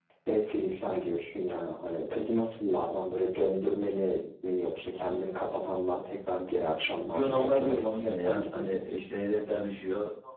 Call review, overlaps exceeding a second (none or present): present